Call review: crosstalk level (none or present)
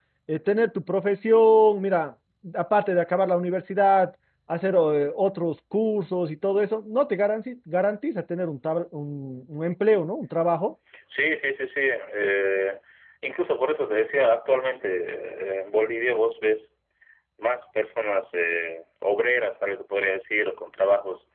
none